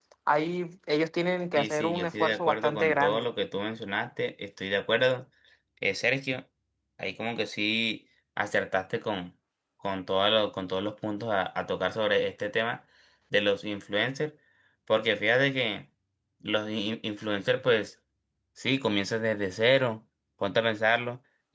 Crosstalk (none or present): present